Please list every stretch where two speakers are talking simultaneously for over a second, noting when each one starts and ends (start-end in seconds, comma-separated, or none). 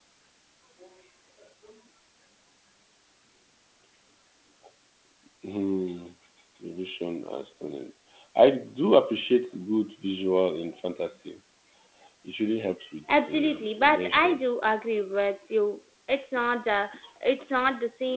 13.1-14.4